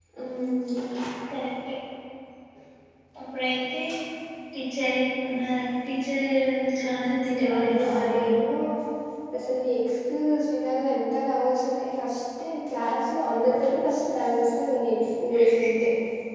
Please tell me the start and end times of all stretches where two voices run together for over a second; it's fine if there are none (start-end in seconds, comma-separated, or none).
6.9-8.3